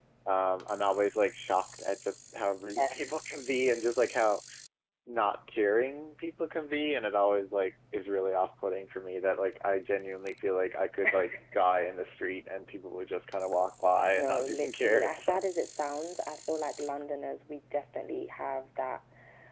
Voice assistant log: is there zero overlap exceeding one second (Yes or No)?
No